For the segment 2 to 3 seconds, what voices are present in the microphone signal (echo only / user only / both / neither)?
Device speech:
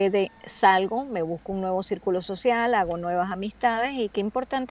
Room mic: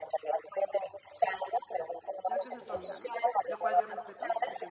both